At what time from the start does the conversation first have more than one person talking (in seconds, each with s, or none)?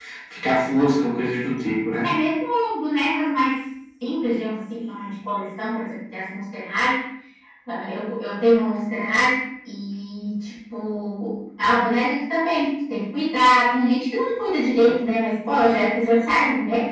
none